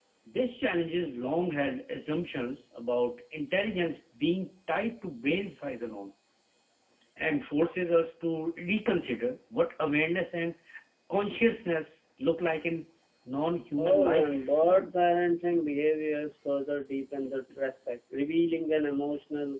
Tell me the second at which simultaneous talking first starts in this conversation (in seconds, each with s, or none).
13.8 s